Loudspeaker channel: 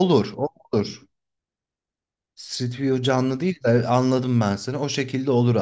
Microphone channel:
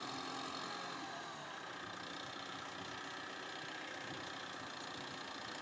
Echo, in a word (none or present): none